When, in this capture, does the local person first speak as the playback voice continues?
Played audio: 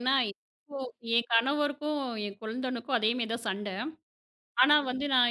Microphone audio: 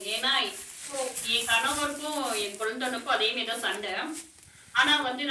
none

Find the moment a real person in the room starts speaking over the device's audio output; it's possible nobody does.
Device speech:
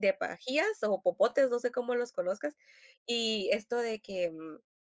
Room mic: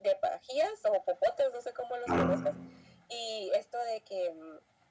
2.0 s

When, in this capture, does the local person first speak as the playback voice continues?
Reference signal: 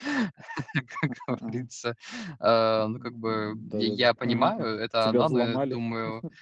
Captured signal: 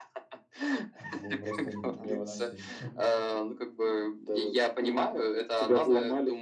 1.0 s

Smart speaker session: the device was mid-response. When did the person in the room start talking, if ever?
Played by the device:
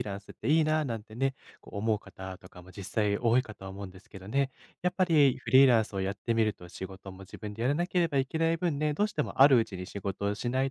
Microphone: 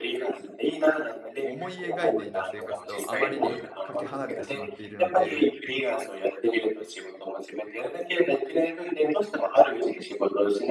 1.4 s

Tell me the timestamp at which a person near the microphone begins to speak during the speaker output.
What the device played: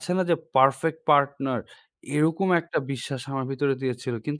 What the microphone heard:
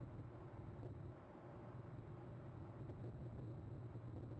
none

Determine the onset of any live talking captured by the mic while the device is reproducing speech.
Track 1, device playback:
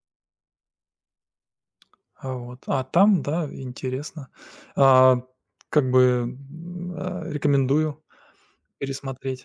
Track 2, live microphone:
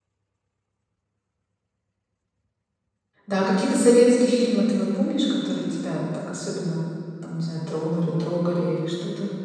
3.3 s

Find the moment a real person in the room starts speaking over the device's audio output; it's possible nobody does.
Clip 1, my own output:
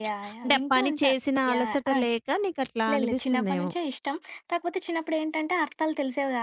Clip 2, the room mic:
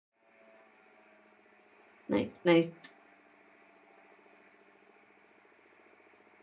2.1 s

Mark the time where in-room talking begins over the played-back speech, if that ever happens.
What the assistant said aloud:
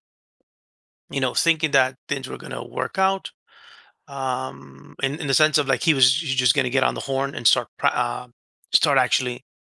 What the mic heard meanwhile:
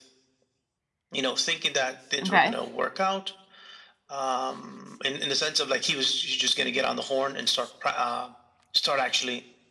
2.2 s

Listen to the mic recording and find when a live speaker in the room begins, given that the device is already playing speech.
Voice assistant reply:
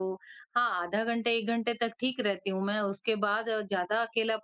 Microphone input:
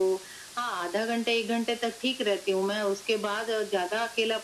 none

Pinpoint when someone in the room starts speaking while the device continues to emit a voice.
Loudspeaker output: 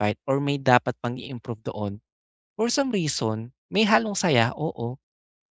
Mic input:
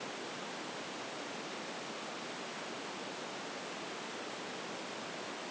none

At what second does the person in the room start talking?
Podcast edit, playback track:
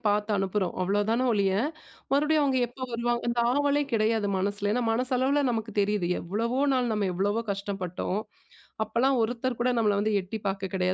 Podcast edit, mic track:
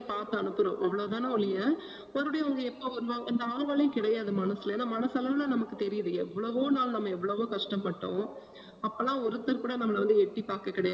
none

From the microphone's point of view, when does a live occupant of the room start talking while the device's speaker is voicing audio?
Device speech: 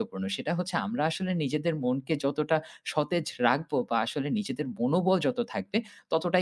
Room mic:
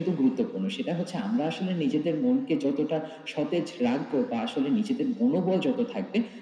none

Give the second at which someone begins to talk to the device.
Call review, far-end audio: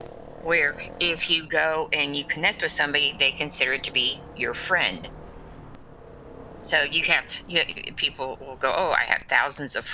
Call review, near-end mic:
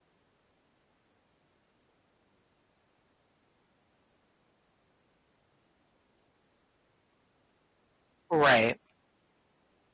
8.3 s

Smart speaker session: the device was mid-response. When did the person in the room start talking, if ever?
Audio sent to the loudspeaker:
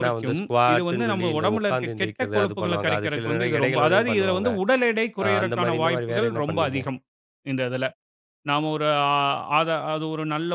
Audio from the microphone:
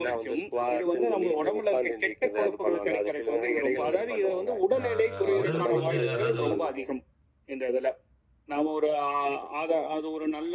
4.8 s

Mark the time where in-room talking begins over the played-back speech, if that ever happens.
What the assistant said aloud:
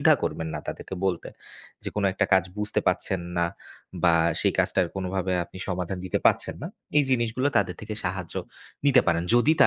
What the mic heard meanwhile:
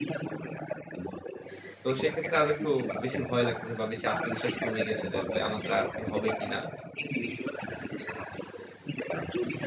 1.8 s

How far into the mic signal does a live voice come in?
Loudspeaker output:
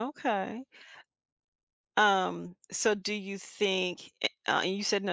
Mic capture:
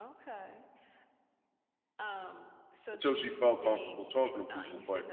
2.9 s

